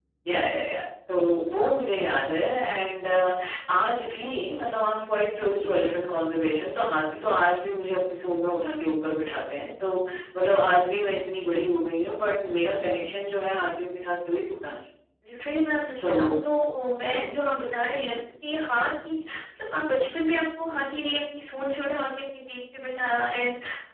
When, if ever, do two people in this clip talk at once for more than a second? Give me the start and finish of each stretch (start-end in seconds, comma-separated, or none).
none